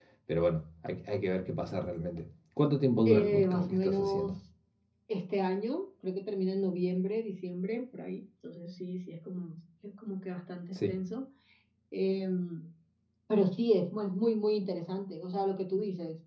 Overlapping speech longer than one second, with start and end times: 3.0-4.4

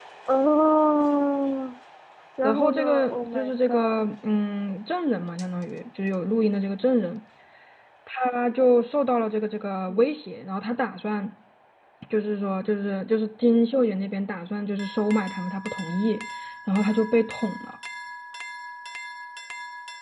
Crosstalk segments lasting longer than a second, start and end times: 2.4-4.1

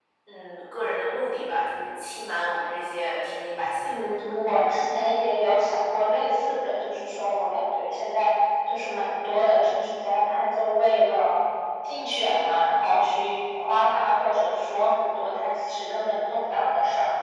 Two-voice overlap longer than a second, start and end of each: none

